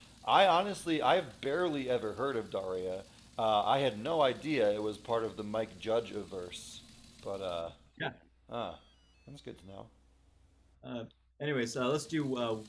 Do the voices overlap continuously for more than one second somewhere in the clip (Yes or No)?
No